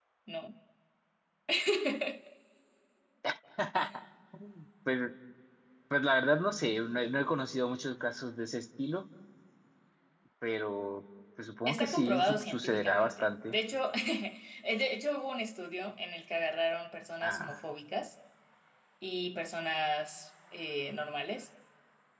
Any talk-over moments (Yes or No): Yes